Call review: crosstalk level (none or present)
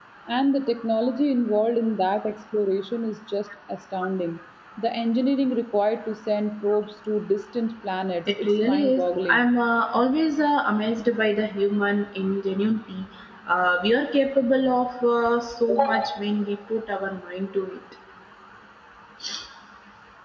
present